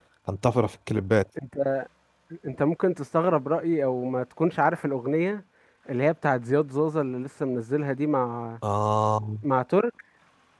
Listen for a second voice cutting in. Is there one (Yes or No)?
No